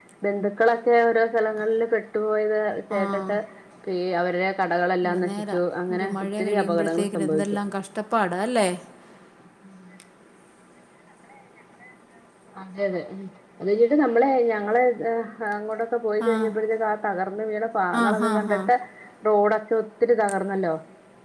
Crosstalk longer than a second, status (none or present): present